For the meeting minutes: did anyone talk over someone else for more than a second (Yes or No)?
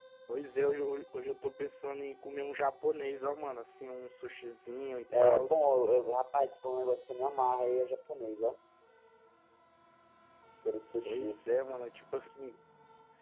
No